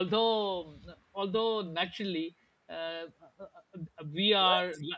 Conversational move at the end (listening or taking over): listening